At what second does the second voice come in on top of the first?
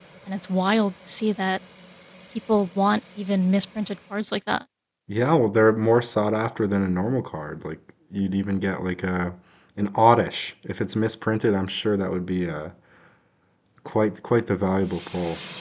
none

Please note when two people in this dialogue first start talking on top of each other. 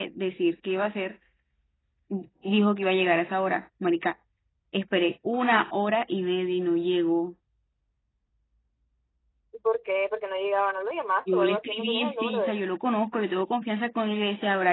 11.3 s

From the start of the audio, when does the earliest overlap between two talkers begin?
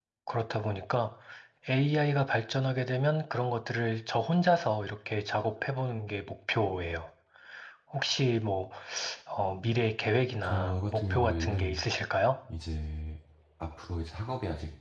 10.4 s

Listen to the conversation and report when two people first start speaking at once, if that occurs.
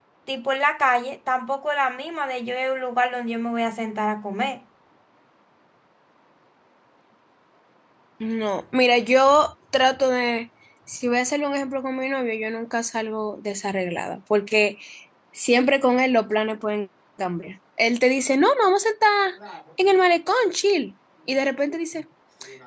none

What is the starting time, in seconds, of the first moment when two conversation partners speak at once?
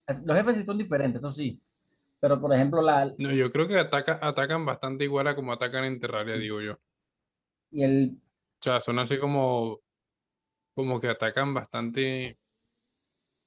none

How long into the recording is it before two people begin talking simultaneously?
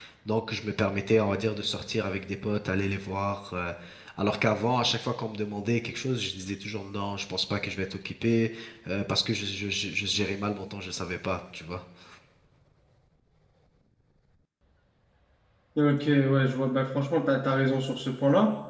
none

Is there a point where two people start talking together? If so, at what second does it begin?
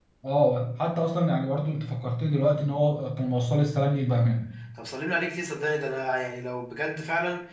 none

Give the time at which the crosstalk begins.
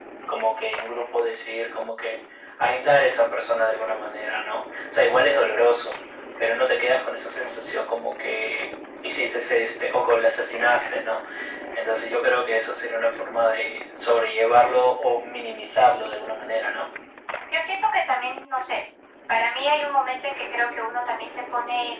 none

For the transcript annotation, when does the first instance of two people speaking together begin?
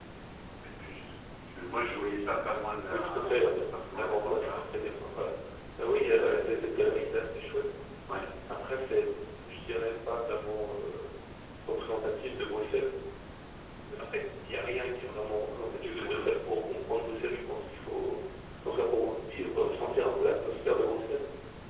2.9 s

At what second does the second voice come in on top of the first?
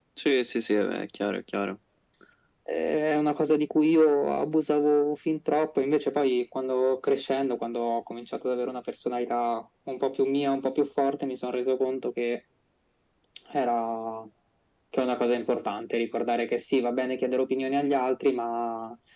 none

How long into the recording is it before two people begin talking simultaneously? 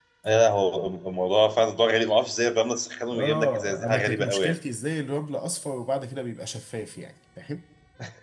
3.1 s

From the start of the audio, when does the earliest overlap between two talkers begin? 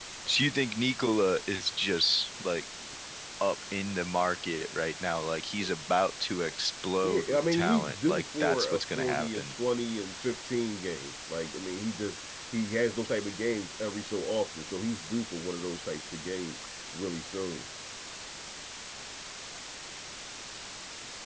7.0 s

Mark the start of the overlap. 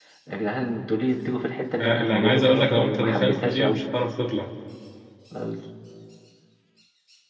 1.8 s

